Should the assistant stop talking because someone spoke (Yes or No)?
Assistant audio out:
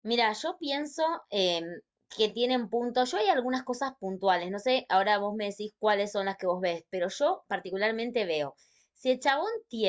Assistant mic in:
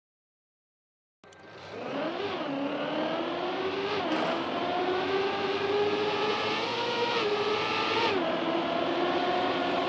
No